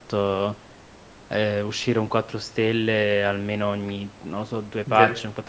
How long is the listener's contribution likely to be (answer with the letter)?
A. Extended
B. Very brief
B